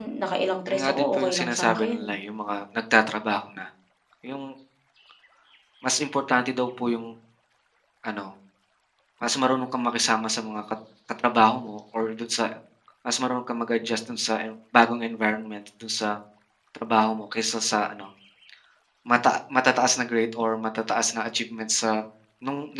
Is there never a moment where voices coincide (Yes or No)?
No